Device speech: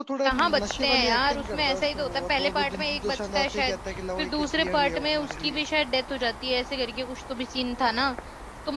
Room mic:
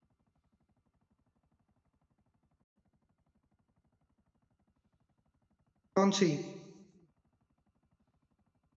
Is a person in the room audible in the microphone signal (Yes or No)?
Yes